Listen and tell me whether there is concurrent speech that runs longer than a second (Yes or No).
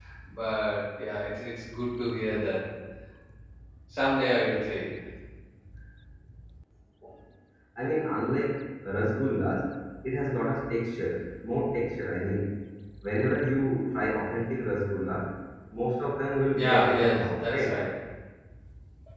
Yes